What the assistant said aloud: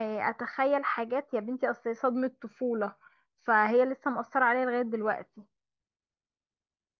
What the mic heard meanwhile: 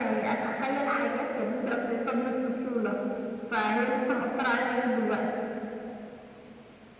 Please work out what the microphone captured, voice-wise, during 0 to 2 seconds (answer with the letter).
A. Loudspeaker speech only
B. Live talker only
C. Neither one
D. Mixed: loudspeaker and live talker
A